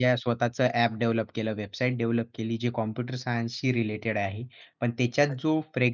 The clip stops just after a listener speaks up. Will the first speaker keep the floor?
Yes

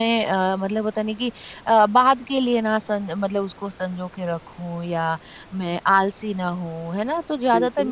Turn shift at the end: No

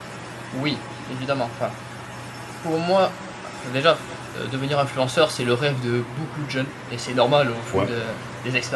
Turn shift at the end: No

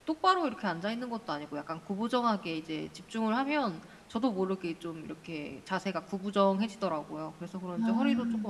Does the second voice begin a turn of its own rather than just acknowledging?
No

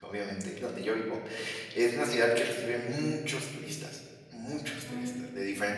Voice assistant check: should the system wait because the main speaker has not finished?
Yes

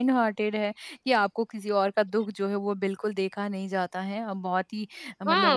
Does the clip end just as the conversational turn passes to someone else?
Yes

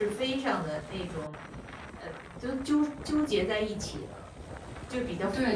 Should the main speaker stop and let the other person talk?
Yes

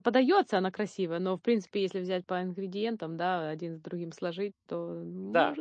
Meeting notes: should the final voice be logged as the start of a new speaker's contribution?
Yes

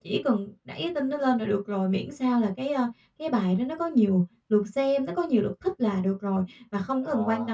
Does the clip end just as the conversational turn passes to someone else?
No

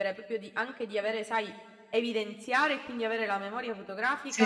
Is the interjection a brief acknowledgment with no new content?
No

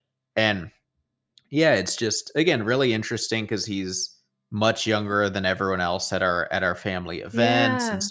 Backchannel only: Yes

